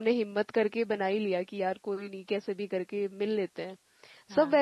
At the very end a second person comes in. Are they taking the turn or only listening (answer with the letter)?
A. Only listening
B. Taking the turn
A